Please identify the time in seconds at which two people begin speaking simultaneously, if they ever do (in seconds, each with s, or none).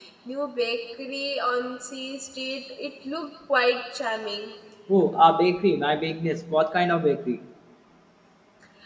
none